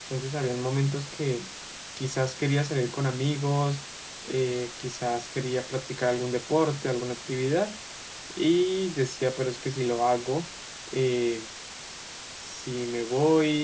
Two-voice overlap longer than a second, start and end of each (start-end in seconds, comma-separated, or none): none